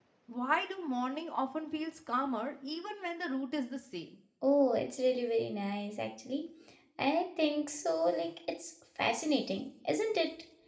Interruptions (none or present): none